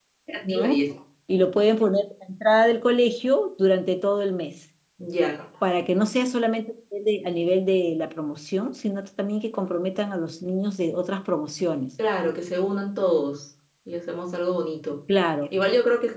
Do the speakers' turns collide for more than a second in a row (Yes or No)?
No